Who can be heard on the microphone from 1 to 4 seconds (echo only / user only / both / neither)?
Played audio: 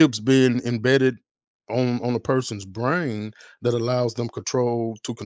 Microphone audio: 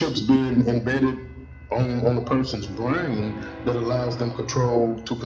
echo only